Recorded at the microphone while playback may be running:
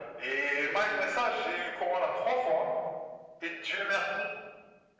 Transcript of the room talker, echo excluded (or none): none